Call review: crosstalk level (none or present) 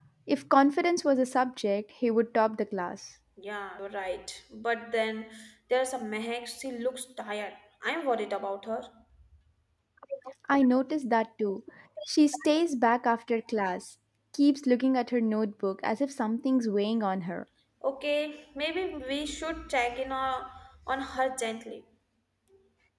none